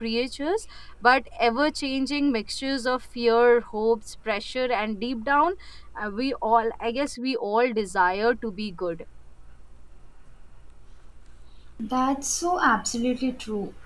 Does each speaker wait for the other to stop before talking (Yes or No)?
Yes